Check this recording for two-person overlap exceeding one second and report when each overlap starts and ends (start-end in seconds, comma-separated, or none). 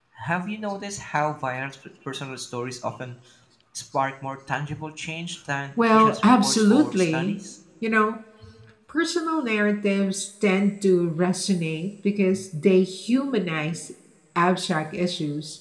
5.8-7.4